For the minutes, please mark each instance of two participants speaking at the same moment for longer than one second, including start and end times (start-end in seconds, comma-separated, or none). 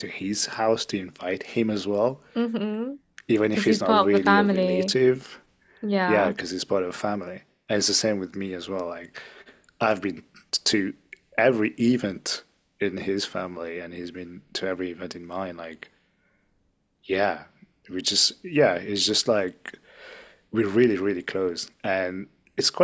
3.6-4.9